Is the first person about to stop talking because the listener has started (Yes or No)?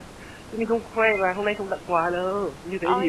Yes